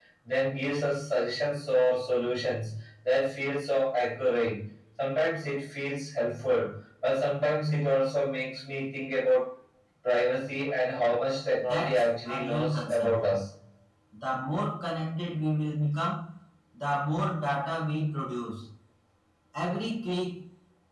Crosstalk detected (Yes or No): Yes